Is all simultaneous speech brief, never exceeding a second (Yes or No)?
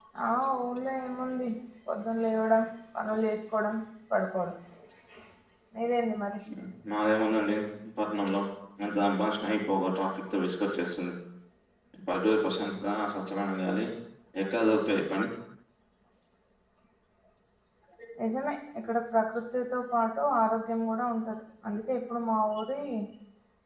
Yes